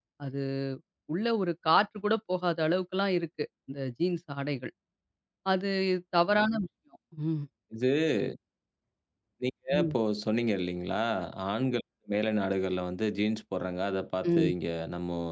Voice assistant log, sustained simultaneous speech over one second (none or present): none